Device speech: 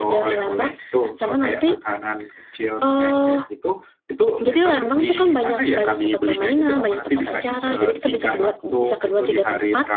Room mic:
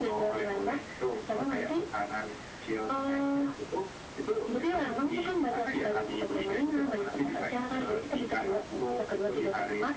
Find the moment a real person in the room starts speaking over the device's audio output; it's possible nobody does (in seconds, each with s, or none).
none